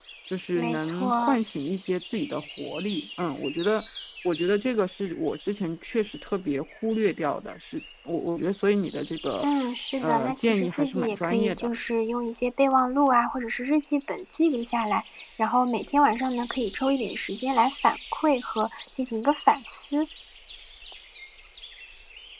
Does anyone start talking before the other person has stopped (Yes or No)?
Yes